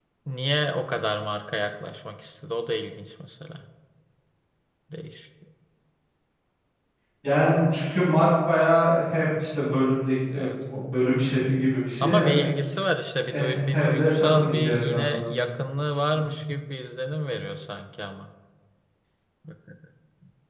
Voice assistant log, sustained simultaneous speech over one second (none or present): present